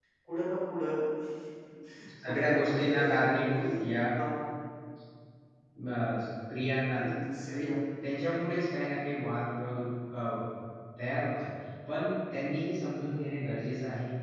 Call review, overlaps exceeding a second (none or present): present